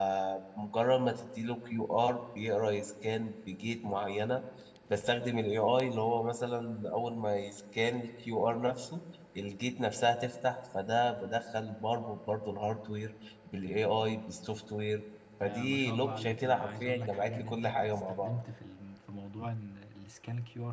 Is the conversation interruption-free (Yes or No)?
No